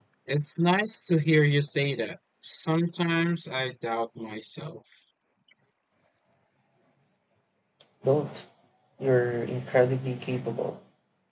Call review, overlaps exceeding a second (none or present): none